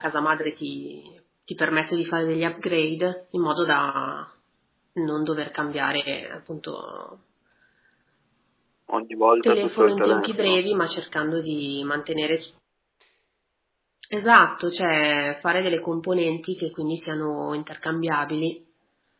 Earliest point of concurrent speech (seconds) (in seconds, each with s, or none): 9.4 s